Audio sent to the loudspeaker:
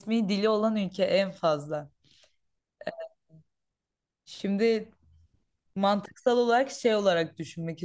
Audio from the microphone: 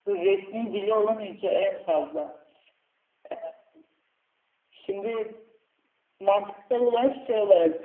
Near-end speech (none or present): none